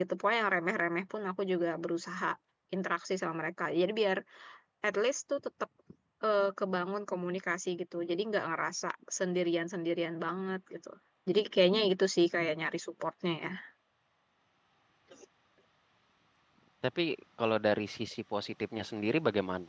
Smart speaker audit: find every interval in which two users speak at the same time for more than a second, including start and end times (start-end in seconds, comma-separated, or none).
none